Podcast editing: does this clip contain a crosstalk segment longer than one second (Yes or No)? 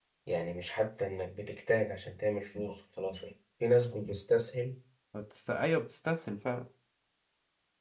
No